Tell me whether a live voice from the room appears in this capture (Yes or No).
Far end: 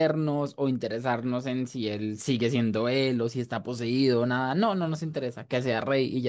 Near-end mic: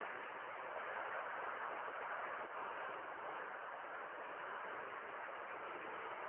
No